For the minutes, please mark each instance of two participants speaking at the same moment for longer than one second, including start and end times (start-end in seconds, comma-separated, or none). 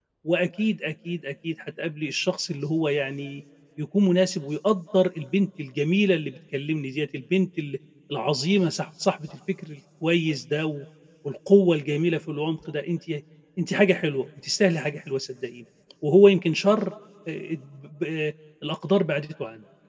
none